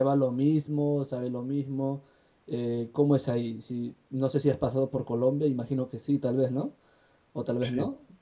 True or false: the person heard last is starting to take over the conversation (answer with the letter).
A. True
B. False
B